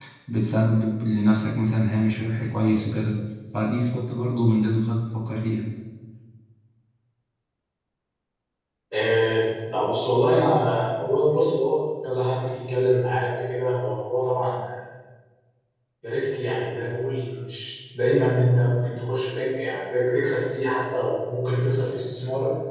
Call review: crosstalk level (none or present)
none